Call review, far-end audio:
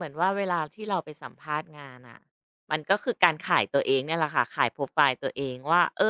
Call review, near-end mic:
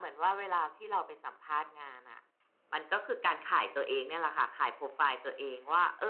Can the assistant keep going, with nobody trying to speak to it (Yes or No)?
Yes